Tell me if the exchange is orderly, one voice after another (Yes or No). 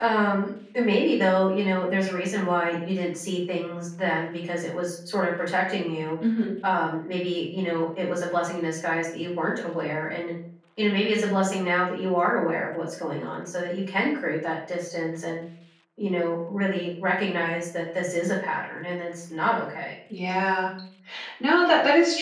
Yes